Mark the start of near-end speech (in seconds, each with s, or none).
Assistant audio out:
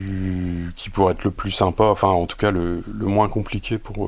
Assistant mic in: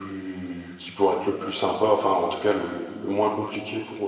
none